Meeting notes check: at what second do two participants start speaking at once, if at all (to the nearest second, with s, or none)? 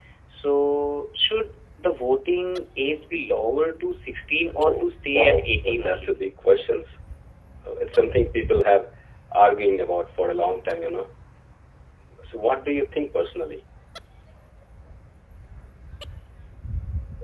5 s